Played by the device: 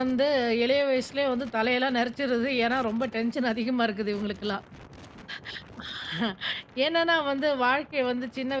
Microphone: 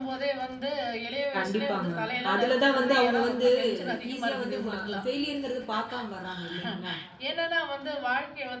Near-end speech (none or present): present